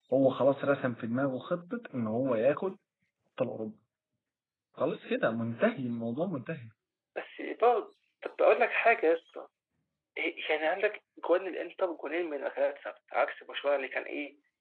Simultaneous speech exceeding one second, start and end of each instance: none

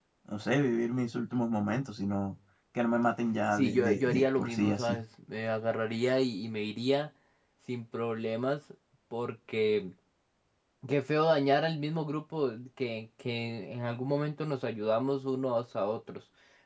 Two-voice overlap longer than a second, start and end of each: 3.5-5.0

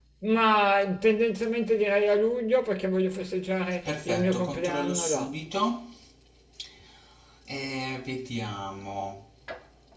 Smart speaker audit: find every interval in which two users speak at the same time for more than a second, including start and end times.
3.9-5.3

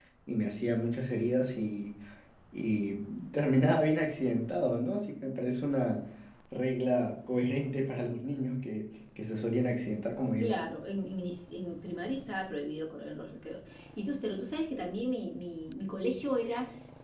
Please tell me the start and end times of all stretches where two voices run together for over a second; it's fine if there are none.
none

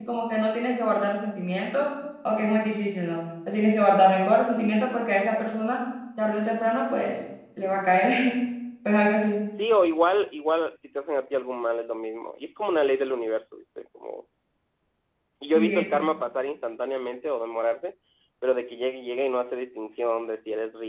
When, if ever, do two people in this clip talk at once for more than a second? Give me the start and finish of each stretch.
none

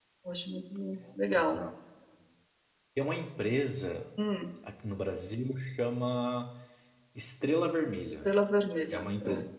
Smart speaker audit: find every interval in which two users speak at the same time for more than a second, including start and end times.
none

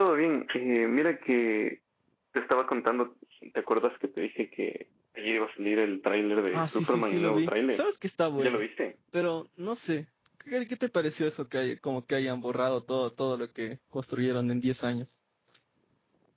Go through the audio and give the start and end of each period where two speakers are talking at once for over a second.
6.5-7.8

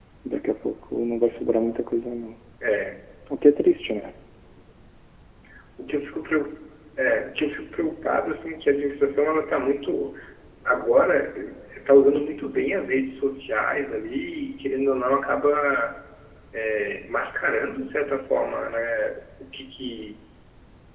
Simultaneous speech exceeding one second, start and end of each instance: none

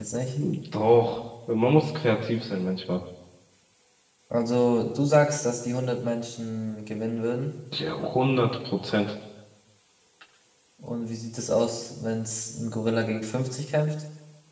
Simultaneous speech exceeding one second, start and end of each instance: none

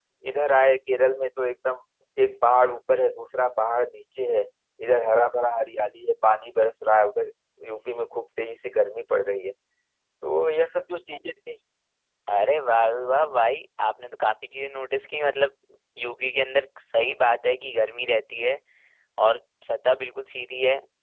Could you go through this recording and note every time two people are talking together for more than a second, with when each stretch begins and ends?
none

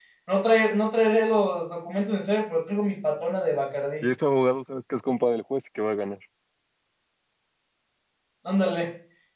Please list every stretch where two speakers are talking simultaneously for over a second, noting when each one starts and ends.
none

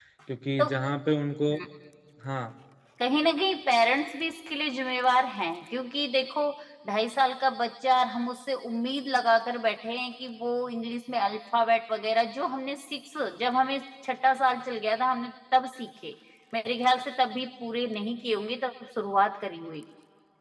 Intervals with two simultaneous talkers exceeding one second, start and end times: none

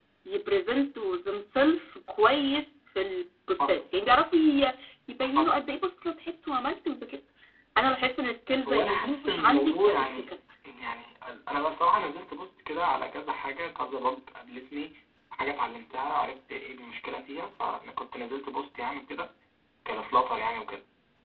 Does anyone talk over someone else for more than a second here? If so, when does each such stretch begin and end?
8.7-10.3

